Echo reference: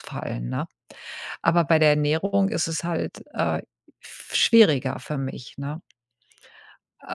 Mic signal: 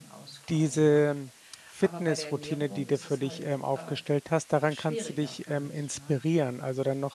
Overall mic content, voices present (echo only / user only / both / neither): both